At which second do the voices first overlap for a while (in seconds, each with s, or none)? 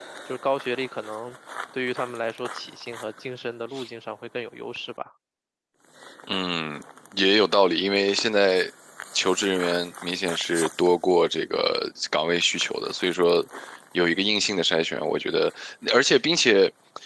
none